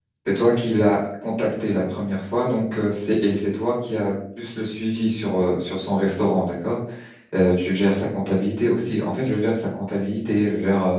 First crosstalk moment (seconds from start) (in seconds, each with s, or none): none